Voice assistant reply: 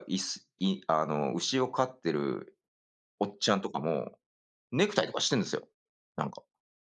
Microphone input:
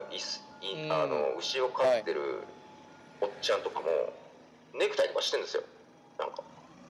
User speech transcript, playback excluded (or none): うーん。はい。